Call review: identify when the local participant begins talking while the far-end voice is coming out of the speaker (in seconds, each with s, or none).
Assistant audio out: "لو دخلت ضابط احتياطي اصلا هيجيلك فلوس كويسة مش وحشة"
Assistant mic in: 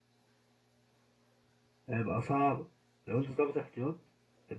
1.9 s